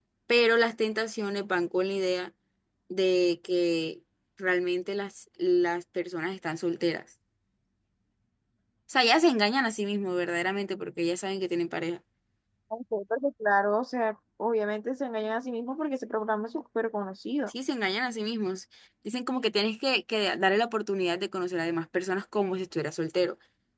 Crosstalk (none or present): none